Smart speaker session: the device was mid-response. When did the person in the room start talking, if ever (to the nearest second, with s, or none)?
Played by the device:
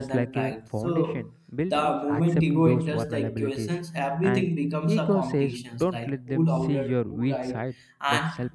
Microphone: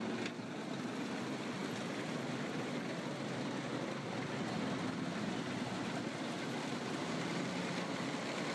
none